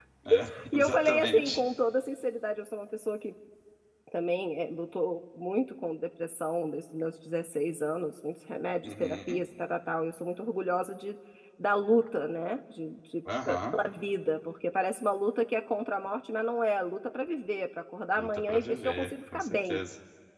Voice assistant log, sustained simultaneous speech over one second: present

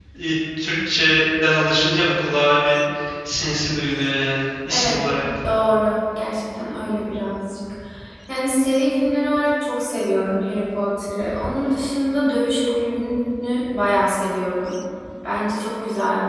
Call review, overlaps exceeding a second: none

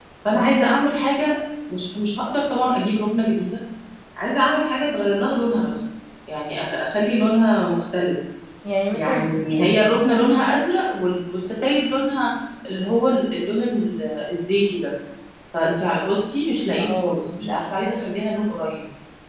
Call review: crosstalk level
present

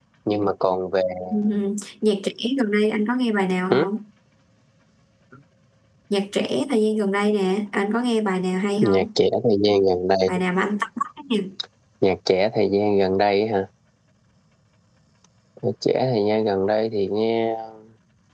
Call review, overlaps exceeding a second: none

